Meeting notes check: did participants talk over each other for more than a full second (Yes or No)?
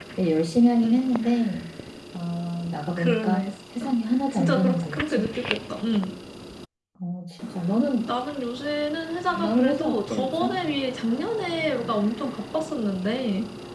Yes